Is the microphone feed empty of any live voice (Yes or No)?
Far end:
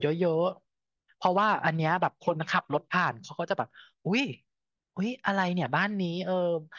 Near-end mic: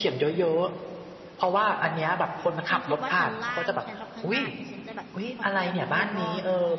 No